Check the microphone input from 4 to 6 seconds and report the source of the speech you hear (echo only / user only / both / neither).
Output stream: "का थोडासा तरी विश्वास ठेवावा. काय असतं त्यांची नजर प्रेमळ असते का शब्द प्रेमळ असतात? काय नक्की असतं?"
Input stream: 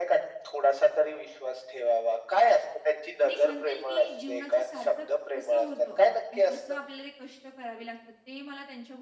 both